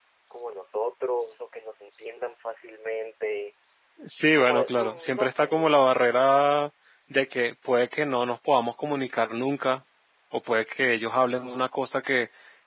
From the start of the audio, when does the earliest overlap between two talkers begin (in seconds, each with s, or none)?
4.2 s